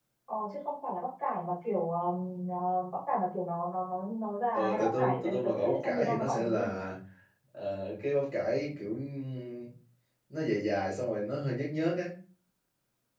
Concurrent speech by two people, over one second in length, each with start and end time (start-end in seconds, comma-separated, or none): 4.5-6.7